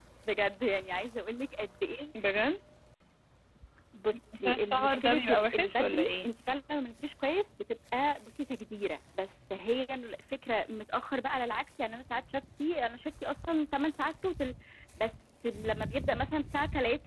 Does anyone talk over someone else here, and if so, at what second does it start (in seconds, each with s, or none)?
4.4 s